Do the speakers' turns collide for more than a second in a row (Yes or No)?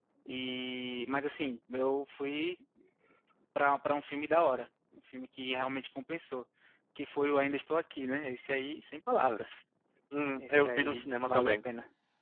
Yes